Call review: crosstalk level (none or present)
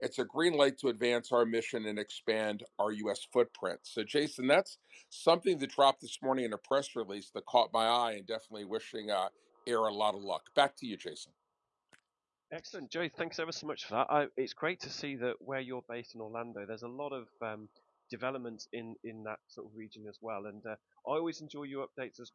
none